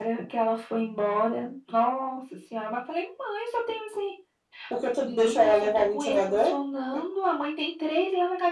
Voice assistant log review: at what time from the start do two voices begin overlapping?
5.0 s

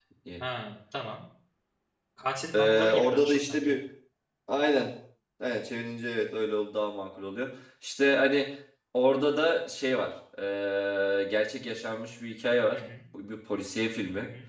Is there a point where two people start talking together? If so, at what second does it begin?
2.5 s

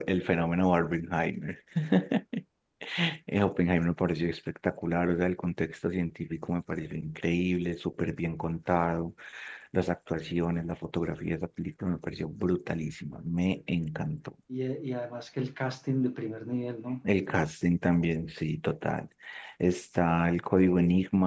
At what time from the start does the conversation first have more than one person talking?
none

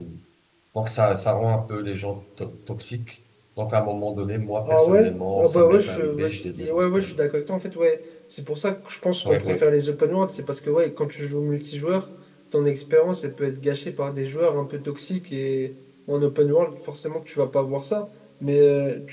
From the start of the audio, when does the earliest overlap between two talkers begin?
4.7 s

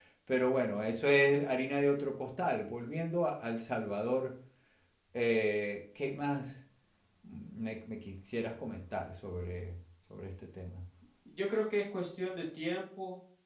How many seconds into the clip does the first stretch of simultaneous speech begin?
none

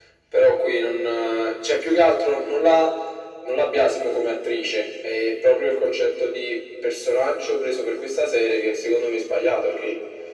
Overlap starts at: none

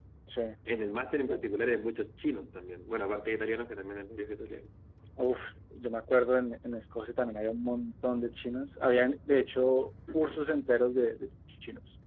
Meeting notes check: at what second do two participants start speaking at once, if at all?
none

